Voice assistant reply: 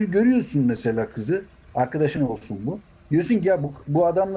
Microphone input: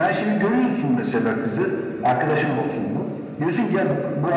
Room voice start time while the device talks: none

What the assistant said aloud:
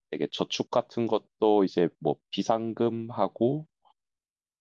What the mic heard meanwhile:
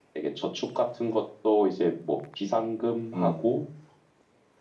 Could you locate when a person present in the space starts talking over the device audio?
3.1 s

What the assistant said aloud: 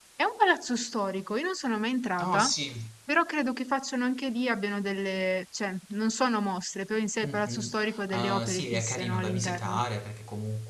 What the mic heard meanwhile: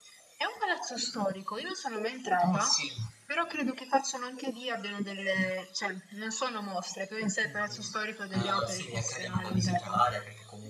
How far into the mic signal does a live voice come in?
none

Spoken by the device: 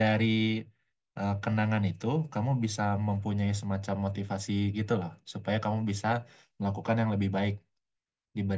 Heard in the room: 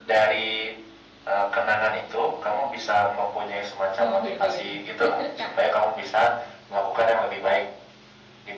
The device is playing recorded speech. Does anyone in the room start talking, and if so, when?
4.0 s

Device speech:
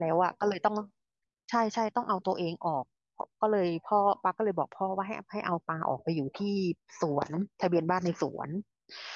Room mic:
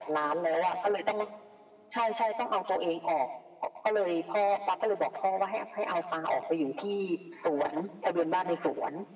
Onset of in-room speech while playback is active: none

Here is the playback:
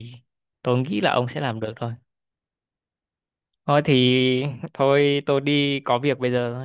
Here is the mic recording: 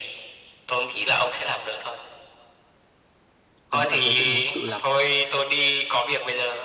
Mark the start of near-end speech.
3.7 s

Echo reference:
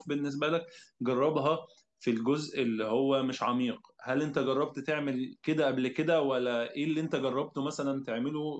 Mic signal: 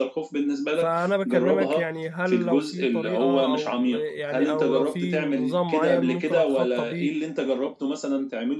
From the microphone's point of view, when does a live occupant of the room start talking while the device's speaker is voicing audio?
0.7 s

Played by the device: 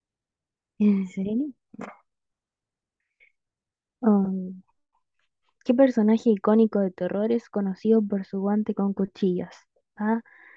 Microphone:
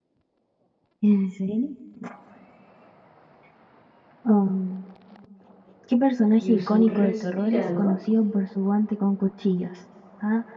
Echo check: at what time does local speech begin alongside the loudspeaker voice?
6.4 s

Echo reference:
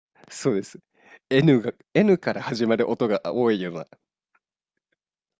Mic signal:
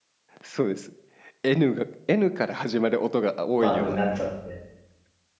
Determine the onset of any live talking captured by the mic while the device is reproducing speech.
3.6 s

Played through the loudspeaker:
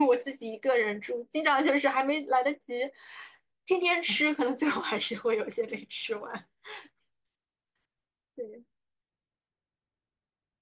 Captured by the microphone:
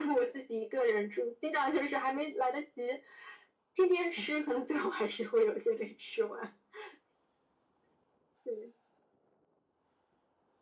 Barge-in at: none

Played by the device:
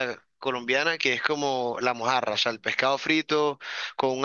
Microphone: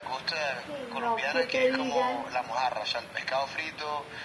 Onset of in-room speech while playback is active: 0.7 s

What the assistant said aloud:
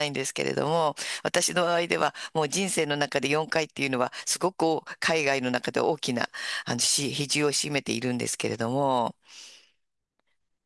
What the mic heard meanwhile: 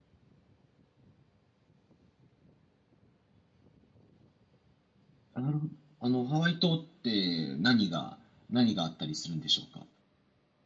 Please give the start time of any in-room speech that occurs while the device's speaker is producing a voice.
5.4 s

